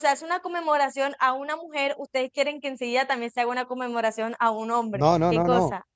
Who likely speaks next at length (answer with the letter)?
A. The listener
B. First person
A